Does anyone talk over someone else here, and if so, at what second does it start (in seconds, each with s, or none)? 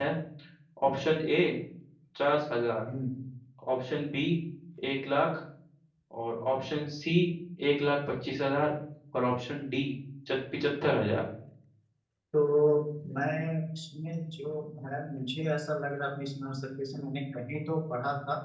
none